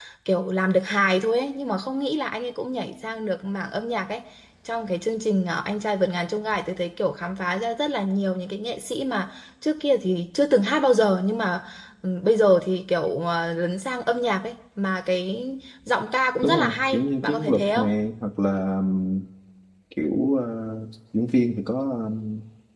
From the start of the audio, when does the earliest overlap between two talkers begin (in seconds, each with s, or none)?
16.4 s